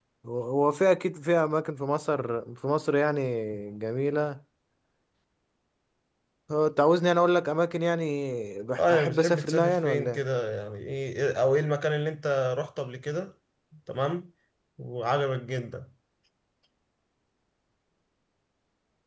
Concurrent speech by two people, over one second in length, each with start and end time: 8.8-10.2

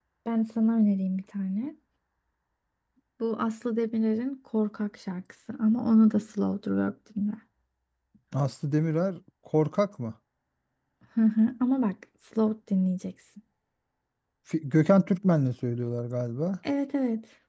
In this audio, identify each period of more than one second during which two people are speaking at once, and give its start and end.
none

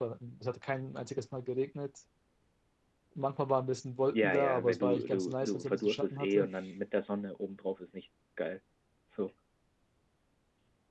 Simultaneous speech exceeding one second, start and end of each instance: 4.1-6.5

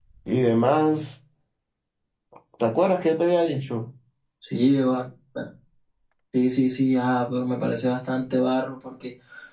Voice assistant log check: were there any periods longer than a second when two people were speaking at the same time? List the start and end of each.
none

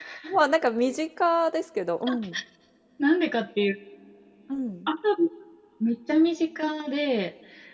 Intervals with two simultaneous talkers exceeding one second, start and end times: none

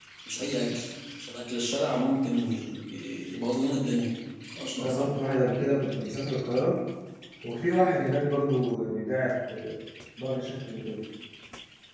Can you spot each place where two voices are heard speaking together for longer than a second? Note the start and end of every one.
none

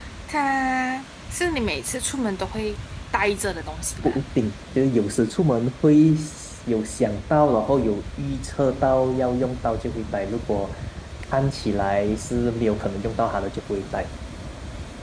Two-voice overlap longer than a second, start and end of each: none

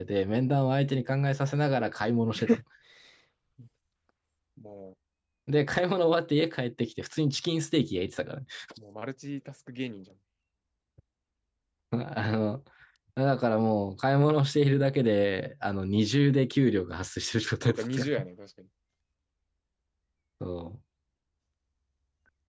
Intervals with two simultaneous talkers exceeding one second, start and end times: none

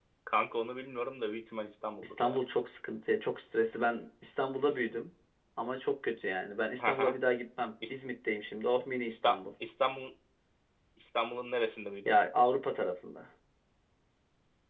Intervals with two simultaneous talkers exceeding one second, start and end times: none

